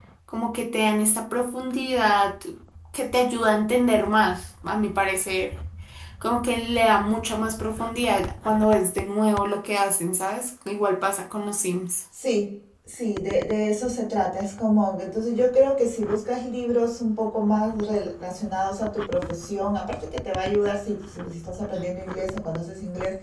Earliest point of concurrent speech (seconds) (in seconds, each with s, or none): none